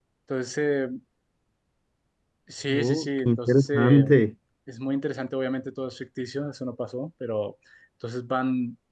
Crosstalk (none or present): present